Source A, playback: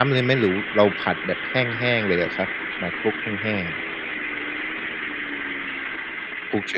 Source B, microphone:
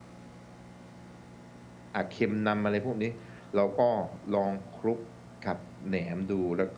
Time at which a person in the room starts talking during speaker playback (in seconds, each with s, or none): 1.9 s